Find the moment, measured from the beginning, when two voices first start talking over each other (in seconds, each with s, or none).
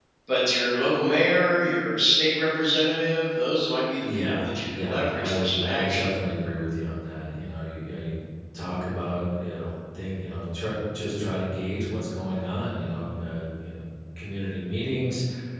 4.0 s